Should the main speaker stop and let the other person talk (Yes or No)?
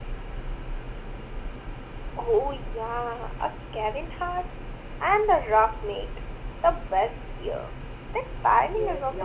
Yes